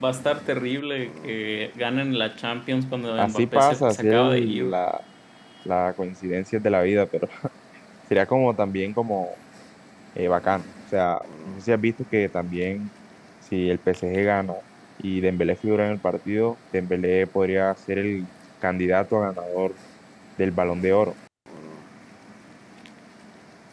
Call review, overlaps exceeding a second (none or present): present